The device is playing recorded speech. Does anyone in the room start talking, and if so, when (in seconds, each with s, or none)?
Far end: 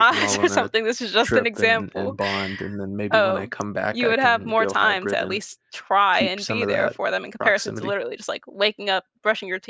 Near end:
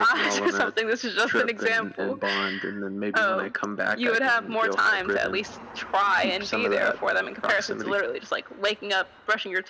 none